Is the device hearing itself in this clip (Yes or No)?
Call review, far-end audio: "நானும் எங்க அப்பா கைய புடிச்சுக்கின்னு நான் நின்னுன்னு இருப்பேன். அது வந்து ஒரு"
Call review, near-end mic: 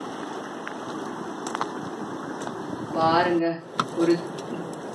No